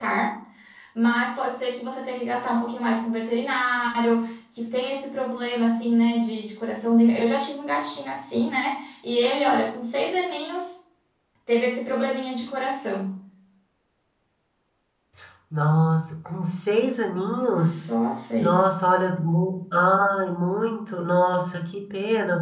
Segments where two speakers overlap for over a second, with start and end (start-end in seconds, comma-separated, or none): none